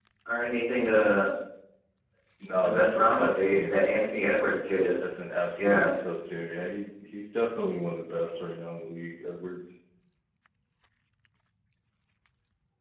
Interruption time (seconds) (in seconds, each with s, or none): 2.6 s